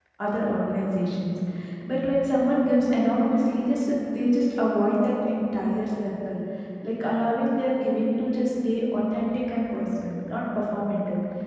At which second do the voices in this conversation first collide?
none

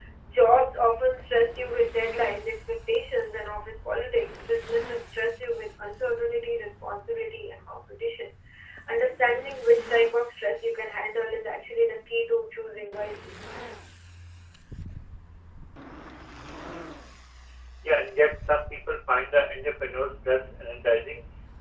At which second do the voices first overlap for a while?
none

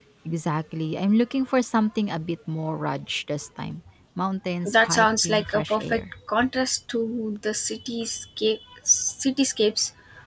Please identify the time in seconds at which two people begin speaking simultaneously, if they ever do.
4.7 s

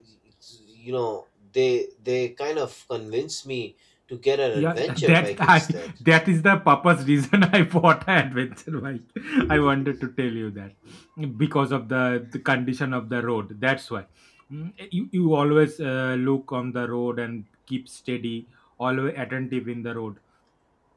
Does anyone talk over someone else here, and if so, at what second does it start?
4.5 s

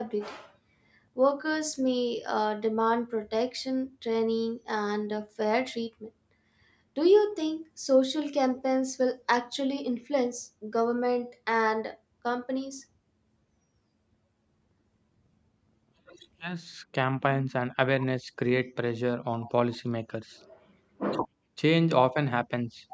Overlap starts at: none

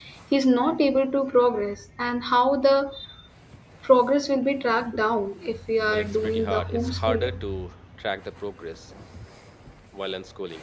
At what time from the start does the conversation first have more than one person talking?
5.9 s

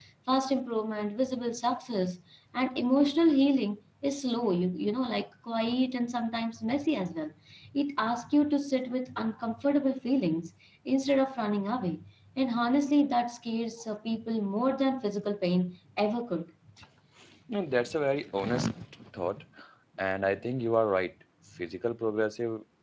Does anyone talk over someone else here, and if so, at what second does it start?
none

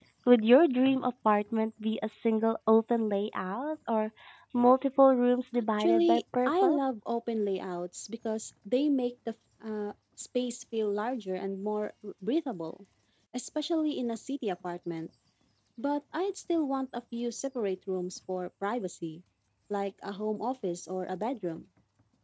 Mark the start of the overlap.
5.5 s

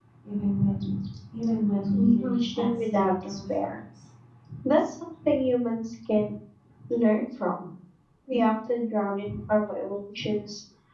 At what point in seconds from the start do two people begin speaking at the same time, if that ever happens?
1.9 s

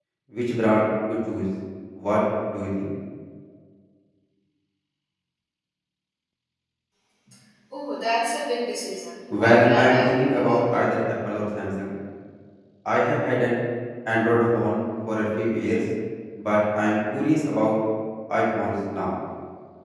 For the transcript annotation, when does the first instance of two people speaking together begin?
9.3 s

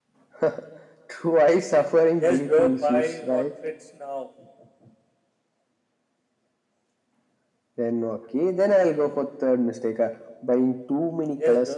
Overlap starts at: 2.2 s

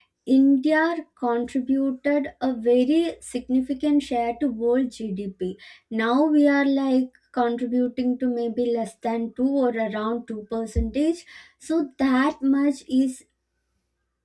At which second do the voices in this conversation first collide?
none

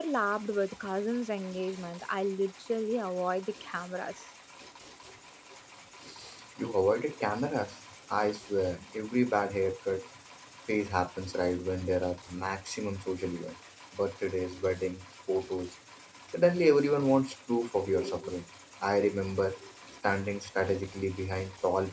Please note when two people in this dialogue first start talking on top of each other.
none

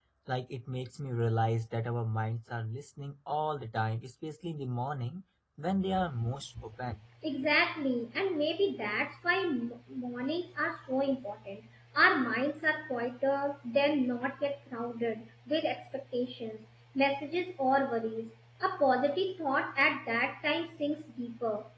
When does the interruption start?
none

